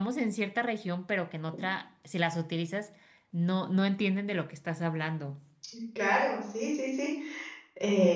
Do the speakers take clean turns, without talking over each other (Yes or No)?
Yes